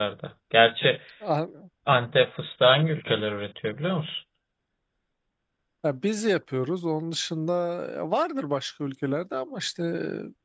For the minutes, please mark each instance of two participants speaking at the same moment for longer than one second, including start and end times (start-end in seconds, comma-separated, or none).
none